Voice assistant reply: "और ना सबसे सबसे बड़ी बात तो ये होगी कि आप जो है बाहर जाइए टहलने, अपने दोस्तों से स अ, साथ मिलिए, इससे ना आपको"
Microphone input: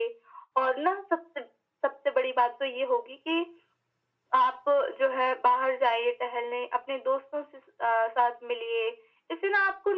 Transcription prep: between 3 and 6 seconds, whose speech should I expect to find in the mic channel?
echo only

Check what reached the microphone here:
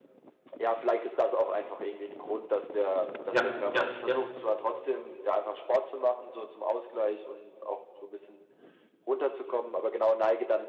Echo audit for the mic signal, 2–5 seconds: both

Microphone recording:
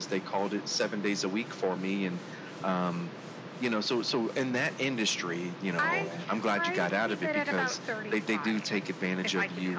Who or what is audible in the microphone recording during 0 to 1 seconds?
echo only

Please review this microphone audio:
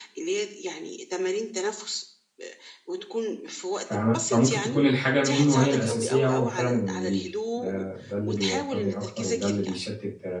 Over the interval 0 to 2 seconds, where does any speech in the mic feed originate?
echo only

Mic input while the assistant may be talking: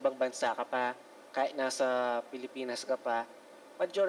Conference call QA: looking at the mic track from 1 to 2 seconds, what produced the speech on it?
echo only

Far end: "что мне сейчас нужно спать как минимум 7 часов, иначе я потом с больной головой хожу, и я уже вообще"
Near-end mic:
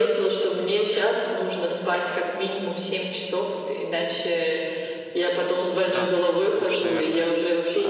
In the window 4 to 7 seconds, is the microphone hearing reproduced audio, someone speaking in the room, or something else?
both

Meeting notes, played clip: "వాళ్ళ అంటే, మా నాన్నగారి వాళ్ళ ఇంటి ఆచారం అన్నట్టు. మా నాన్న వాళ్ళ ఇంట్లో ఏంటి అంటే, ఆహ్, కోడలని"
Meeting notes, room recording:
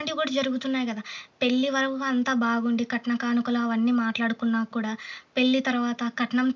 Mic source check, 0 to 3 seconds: user only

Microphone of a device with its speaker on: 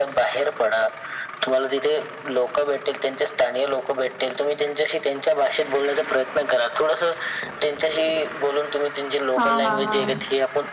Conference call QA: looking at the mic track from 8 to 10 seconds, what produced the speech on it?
both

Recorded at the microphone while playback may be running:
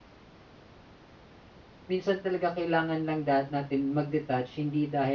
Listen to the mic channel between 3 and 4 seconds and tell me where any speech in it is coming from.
user only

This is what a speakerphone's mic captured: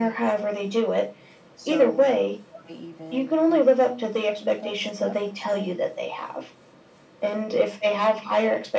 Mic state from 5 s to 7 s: both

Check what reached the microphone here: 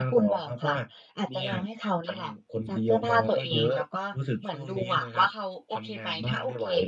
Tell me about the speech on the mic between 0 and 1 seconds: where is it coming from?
echo only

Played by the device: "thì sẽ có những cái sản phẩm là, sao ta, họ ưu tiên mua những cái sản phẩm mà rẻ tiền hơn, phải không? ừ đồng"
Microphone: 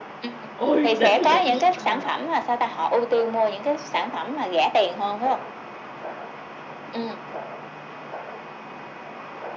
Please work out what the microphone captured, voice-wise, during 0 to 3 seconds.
both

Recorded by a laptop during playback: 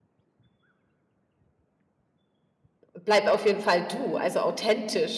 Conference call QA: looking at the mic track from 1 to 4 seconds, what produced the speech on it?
user only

